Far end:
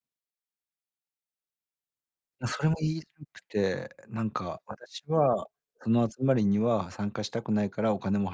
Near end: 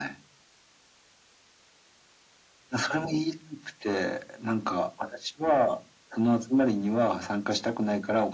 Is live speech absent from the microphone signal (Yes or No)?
Yes